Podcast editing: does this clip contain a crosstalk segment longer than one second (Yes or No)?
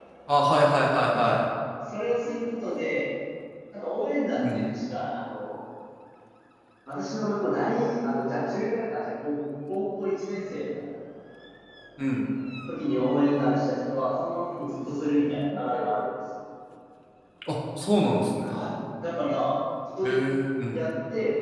No